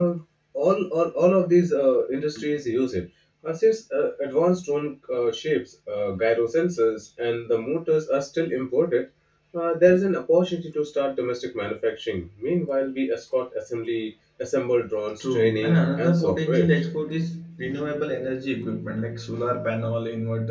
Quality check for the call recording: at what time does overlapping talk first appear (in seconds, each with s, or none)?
15.2 s